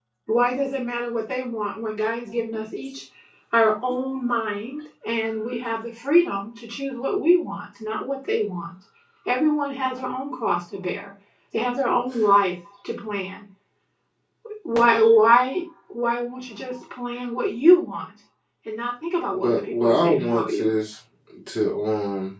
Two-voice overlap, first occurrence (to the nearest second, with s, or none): 19 s